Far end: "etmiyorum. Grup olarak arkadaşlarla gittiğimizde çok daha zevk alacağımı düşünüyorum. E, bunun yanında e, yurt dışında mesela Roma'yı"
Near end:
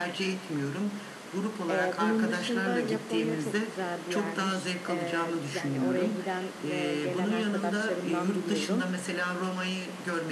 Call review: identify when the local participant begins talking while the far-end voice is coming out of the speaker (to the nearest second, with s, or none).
2 s